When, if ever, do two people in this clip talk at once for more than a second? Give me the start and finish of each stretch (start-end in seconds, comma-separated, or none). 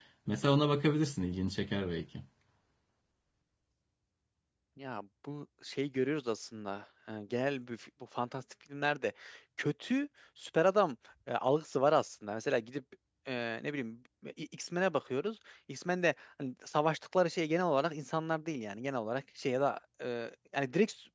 none